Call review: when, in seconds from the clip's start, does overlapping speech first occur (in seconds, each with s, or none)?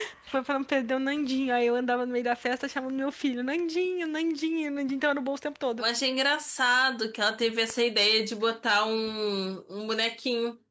none